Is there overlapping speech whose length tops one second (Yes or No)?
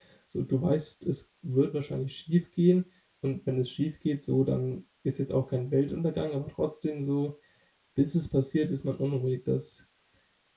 No